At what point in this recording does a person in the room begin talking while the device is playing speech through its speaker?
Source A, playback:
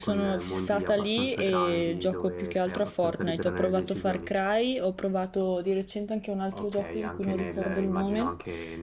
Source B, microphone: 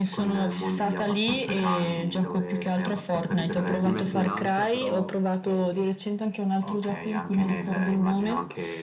4 s

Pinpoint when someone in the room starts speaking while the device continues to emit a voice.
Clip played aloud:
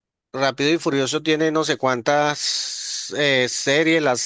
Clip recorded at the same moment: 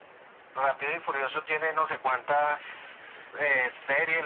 none

